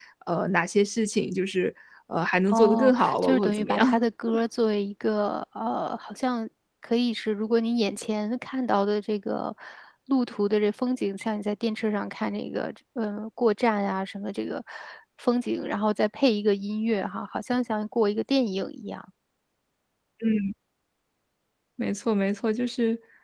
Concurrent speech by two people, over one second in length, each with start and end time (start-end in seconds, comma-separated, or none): 2.5-4.0